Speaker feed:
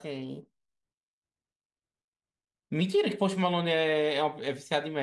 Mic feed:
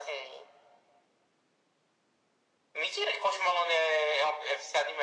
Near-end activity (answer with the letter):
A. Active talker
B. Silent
B